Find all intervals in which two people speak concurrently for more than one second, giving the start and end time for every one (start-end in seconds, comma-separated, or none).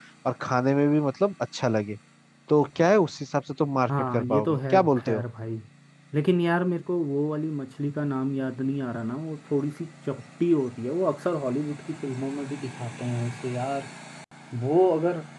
3.9-5.2